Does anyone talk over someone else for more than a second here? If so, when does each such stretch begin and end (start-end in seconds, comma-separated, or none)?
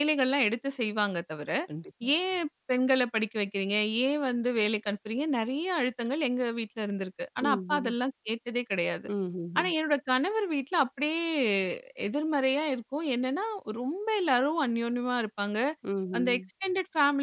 none